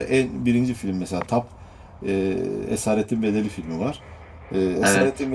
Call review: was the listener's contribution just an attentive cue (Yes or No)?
Yes